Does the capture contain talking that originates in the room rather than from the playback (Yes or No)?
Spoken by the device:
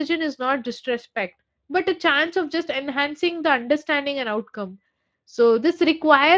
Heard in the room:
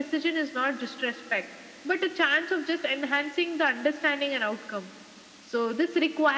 No